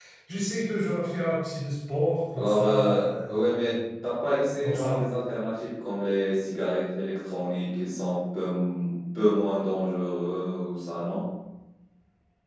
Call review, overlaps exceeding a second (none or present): present